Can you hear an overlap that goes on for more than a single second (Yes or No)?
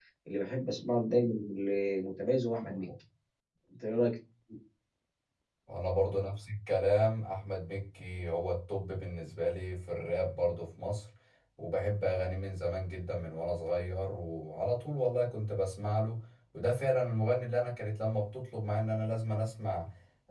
No